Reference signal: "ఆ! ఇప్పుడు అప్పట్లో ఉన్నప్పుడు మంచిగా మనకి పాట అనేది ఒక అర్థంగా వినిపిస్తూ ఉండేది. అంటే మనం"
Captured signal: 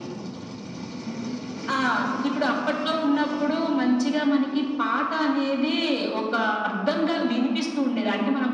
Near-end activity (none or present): none